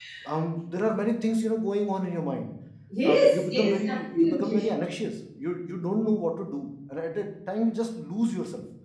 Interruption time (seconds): 3.0 s

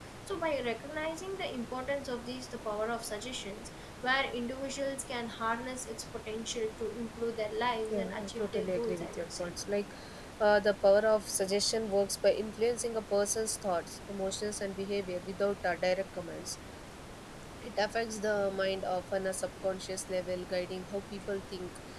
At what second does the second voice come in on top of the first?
7.8 s

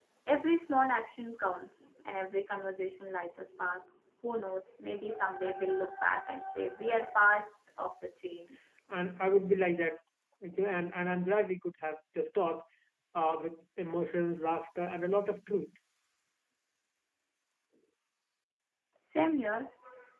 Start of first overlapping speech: none

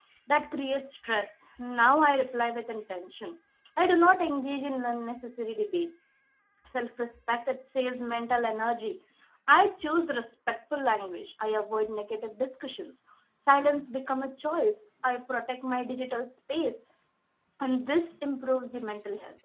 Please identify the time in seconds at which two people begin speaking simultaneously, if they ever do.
none

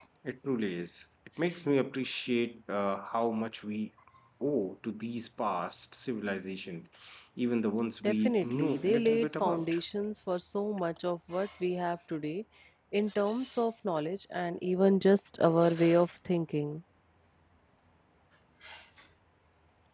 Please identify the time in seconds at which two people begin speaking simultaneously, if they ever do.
8.0 s

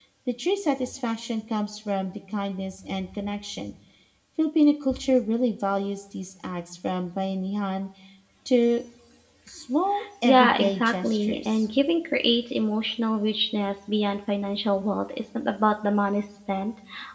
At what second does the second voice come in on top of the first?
10.2 s

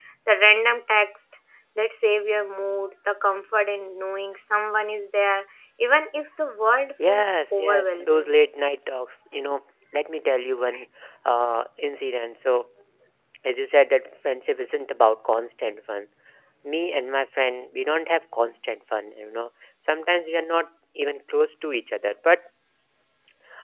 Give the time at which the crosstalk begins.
7.0 s

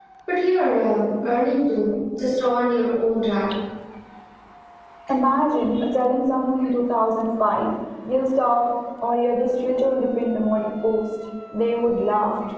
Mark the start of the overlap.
none

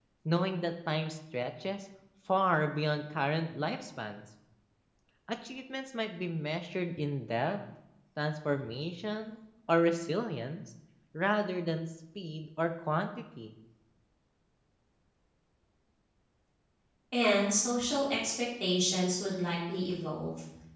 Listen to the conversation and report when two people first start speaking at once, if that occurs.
none

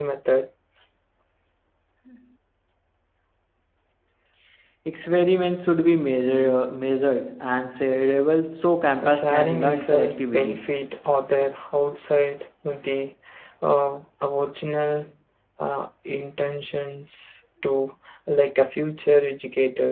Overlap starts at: 9.0 s

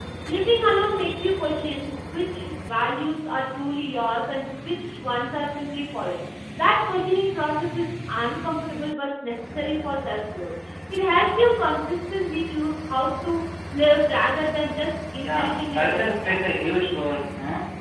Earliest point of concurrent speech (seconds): 15.2 s

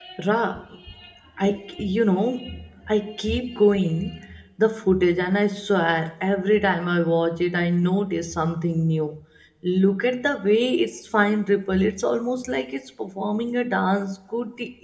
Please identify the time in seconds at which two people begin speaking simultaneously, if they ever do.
none

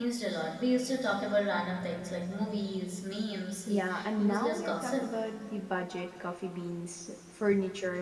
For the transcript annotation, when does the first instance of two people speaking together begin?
3.7 s

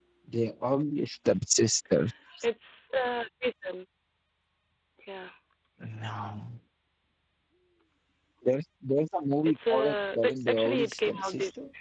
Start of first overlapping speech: 9.4 s

